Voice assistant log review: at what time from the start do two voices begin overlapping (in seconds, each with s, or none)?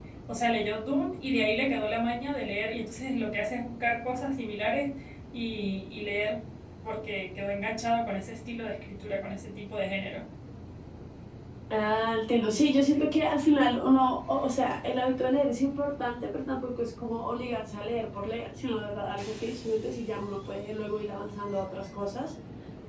none